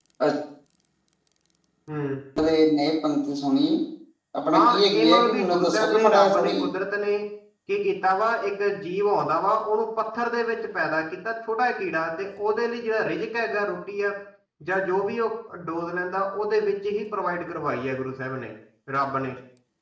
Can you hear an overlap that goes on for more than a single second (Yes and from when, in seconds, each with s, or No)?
Yes, from 4.5 s